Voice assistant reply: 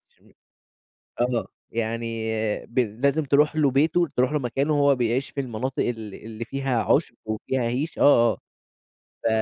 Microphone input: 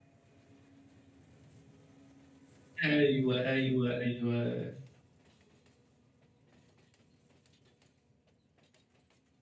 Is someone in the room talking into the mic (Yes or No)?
Yes